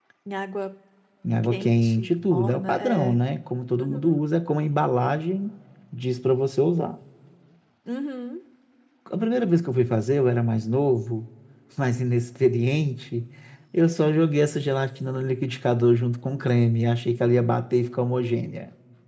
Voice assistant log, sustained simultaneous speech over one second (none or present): present